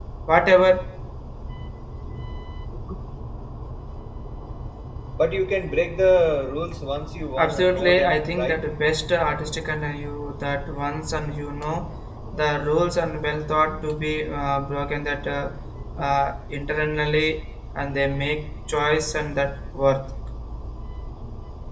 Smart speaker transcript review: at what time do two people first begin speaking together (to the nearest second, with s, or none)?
7 s